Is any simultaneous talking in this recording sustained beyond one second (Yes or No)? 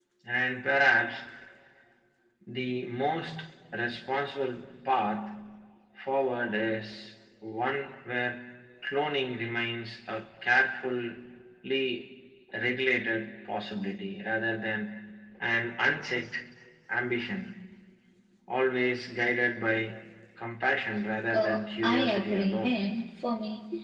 Yes